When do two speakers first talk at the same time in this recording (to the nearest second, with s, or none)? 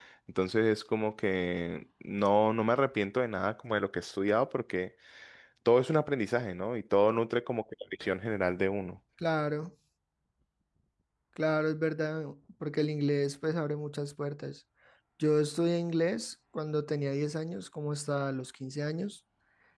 none